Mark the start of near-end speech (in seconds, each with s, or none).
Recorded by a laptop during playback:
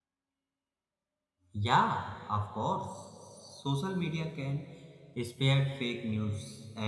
1.5 s